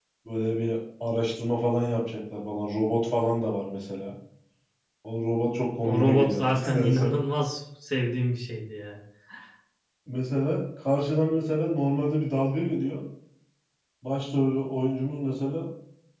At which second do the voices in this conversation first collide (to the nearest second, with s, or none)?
6 s